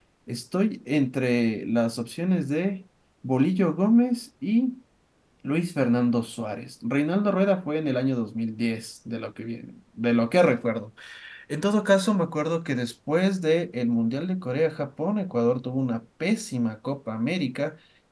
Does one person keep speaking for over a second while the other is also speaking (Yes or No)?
No